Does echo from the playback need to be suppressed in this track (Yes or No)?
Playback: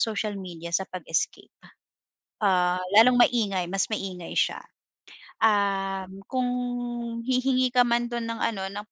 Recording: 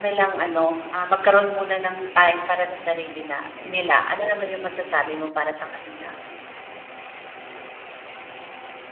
No